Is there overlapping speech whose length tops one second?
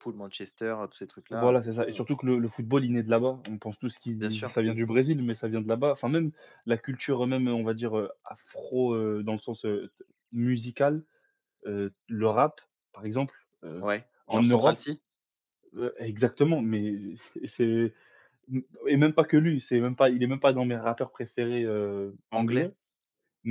No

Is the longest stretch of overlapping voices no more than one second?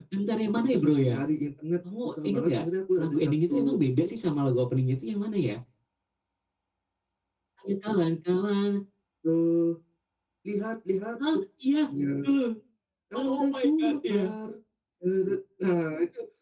No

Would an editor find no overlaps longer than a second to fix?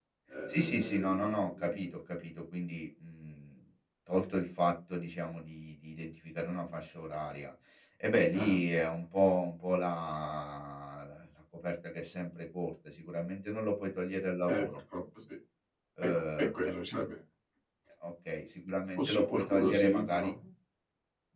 No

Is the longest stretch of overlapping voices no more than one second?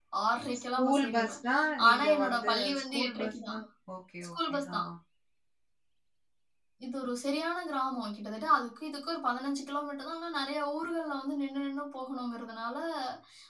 No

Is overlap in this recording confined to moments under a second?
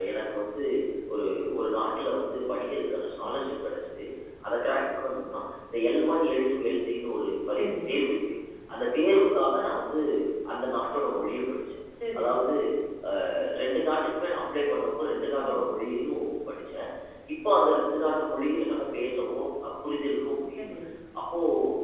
Yes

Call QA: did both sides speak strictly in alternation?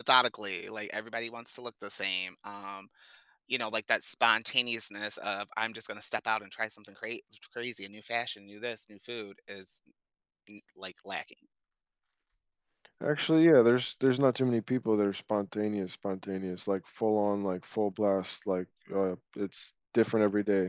Yes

